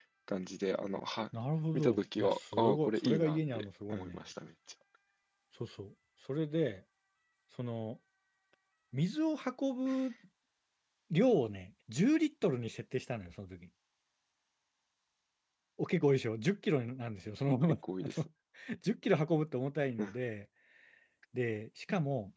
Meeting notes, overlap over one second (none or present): present